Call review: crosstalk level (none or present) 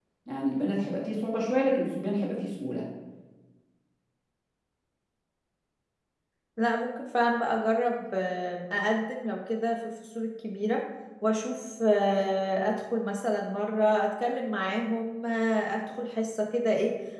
none